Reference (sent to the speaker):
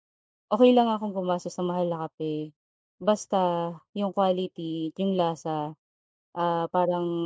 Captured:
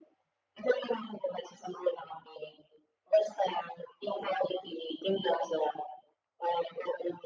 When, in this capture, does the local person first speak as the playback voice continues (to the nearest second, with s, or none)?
none